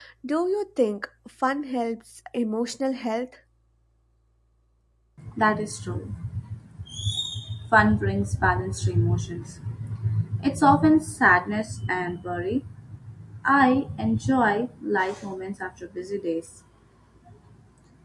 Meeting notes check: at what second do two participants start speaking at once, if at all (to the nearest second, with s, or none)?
none